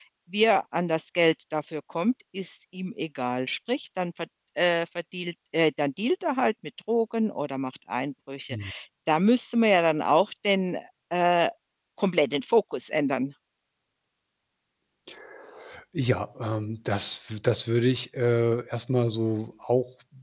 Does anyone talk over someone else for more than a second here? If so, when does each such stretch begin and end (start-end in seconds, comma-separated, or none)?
none